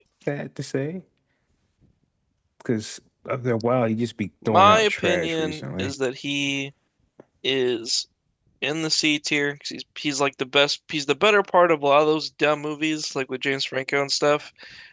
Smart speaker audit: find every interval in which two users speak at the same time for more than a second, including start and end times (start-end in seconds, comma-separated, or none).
4.5-5.9